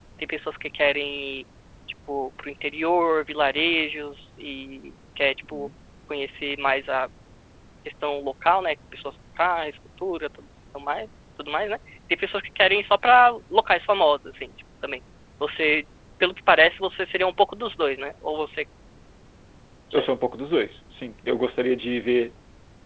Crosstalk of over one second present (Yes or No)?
No